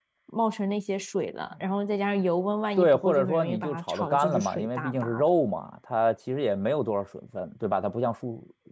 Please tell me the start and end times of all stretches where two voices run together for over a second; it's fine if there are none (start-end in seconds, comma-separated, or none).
2.8-5.2